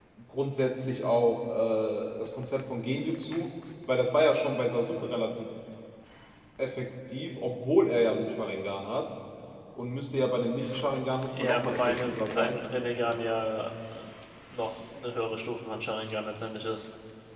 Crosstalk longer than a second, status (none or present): present